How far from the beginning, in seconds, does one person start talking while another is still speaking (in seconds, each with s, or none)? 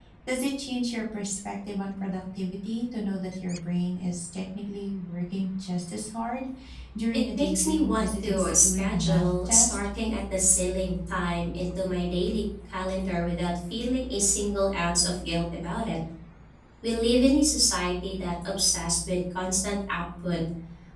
7.1 s